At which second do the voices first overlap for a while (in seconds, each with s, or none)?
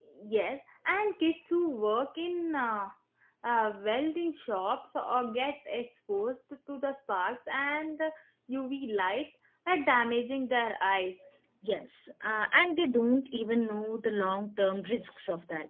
none